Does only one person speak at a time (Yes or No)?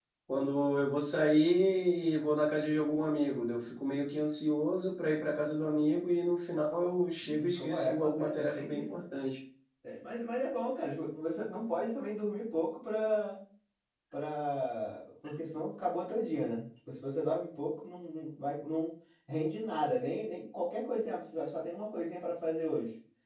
No